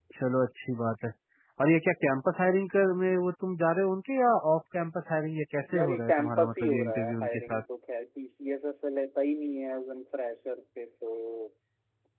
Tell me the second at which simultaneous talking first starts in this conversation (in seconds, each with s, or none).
5.7 s